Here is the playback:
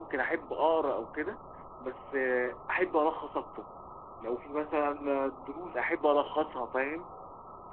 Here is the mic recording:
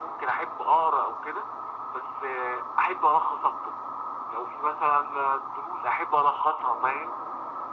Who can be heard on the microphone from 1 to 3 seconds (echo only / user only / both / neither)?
echo only